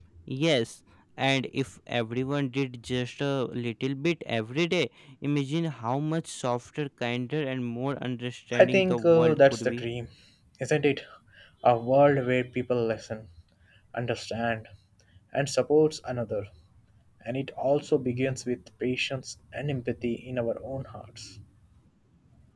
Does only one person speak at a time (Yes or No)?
No